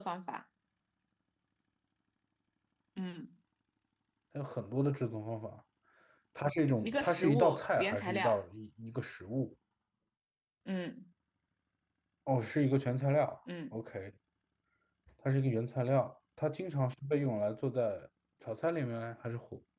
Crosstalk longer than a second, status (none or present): present